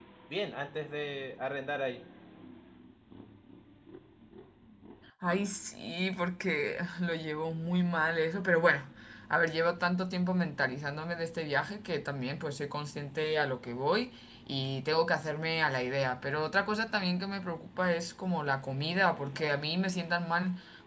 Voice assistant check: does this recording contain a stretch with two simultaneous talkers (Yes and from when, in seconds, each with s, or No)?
No